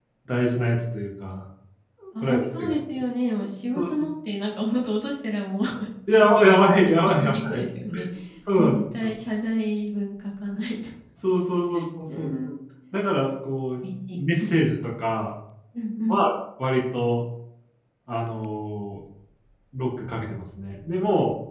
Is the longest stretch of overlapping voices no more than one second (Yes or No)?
No